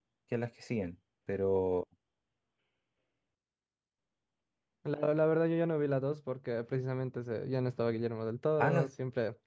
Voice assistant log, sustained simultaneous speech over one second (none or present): none